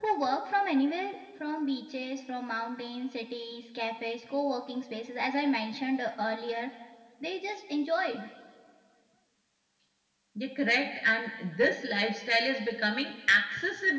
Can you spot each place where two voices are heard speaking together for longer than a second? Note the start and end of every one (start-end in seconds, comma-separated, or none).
none